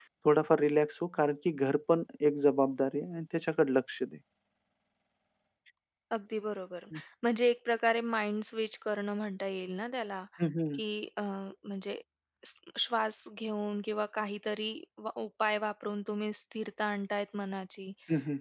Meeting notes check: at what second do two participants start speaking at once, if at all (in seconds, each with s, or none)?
none